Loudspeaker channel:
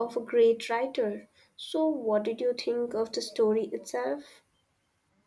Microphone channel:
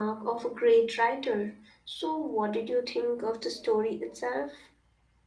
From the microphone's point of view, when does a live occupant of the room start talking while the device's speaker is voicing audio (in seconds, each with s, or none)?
none